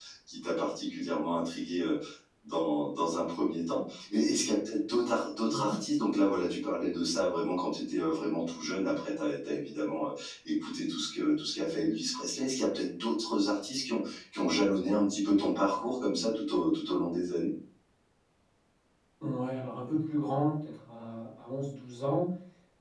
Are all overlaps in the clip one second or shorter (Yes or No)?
Yes